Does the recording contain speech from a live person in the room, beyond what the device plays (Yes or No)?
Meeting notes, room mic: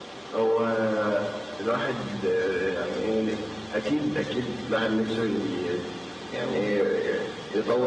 No